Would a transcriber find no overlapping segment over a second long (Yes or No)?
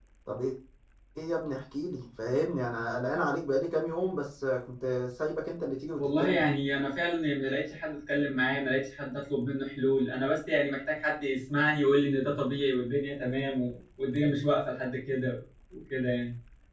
Yes